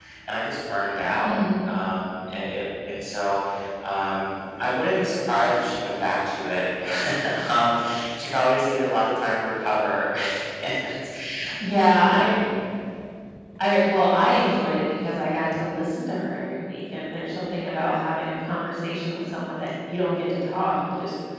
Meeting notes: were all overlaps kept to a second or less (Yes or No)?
Yes